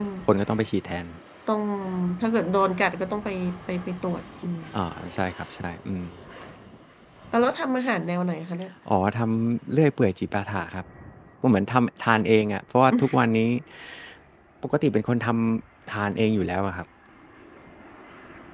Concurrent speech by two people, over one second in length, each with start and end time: none

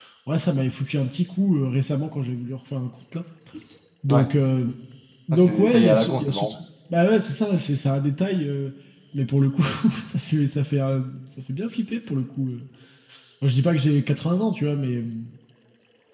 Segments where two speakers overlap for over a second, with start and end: 5.3-6.6

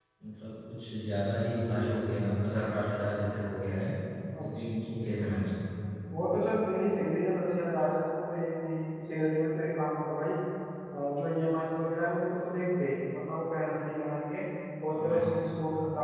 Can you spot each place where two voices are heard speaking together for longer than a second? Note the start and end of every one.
none

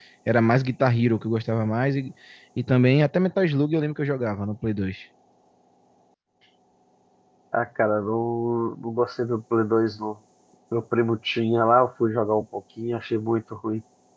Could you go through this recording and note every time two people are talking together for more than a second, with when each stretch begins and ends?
none

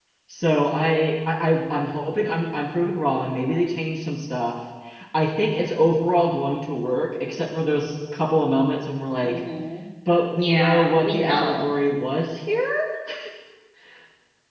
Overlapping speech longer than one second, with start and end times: 10.3-11.7

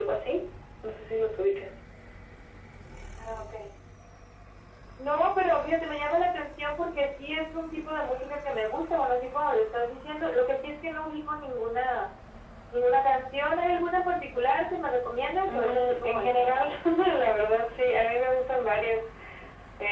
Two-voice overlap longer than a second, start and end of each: 15.5-16.7

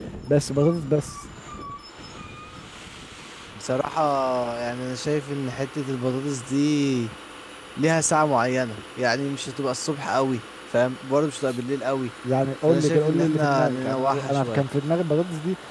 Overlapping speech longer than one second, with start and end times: 12.7-14.6

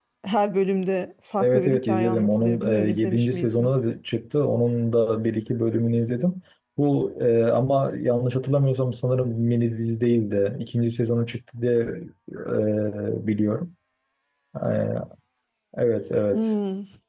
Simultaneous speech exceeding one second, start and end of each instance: 1.4-3.7

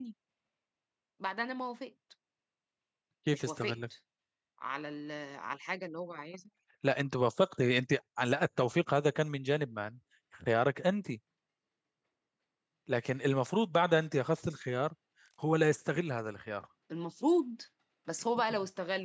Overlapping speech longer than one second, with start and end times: none

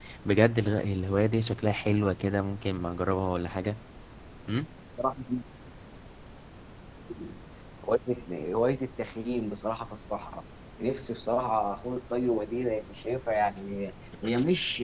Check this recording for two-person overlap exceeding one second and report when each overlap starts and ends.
none

